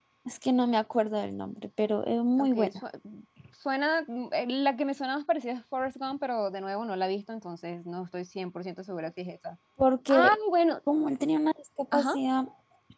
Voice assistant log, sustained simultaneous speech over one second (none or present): none